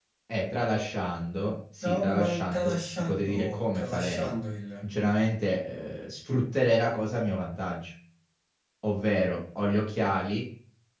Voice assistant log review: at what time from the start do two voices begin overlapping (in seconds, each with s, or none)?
1.8 s